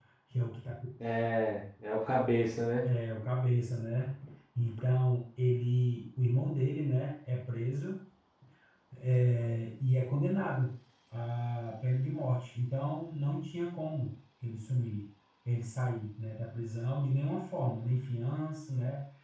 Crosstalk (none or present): none